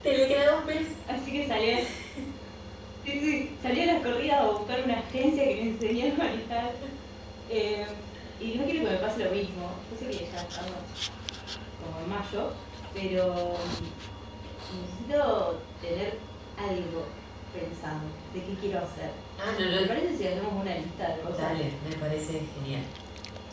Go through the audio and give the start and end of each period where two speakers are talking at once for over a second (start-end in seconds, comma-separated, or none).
none